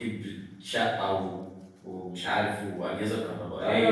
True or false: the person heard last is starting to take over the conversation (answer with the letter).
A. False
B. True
B